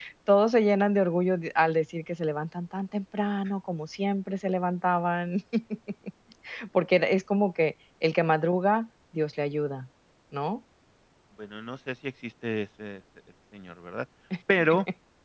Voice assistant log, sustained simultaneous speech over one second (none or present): none